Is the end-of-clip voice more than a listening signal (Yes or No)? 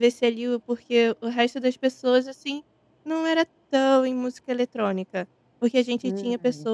No